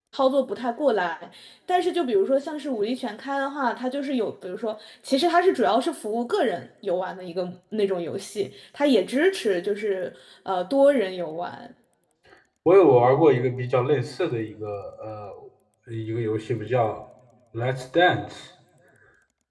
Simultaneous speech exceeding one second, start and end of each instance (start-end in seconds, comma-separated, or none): none